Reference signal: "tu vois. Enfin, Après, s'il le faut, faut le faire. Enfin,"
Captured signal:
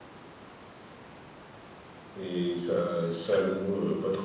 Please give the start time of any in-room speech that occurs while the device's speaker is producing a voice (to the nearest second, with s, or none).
2 s